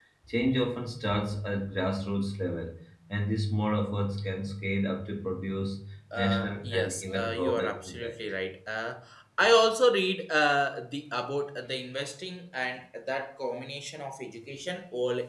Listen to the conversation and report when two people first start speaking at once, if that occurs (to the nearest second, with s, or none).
6 s